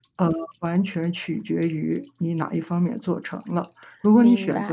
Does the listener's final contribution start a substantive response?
No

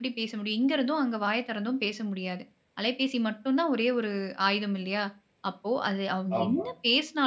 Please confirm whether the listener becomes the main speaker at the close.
No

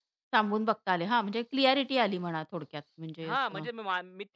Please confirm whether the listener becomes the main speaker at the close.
Yes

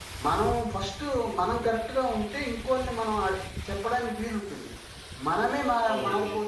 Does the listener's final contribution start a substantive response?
No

